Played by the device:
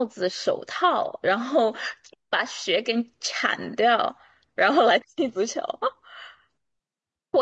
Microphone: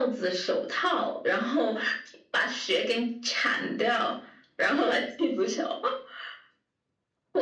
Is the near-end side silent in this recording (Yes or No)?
Yes